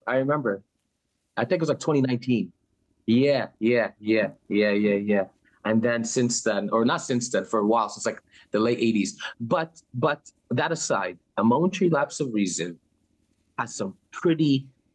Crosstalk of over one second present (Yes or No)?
No